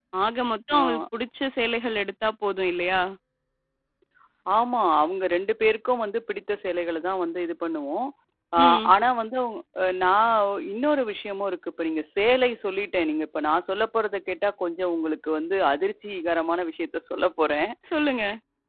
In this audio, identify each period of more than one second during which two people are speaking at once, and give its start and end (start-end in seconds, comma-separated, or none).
none